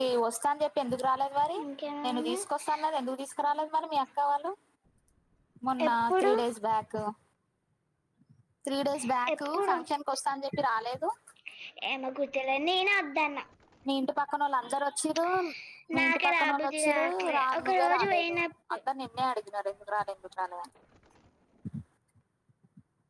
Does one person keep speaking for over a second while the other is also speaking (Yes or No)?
Yes